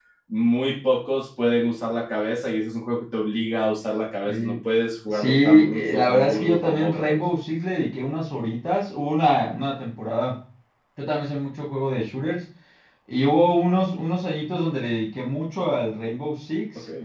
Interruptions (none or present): present